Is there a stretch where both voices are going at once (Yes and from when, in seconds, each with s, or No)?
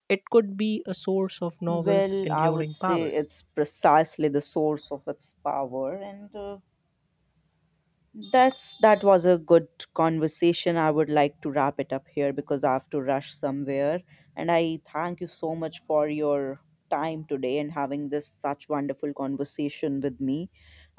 Yes, from 1.7 s